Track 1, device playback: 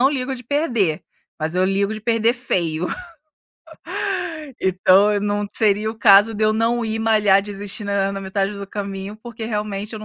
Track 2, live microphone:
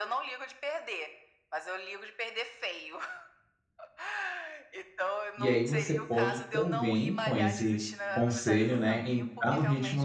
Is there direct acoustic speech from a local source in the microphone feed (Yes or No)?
Yes